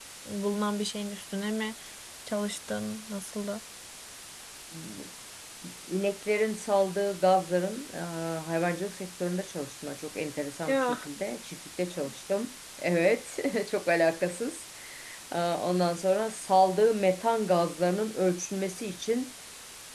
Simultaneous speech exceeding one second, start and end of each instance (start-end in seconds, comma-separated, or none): none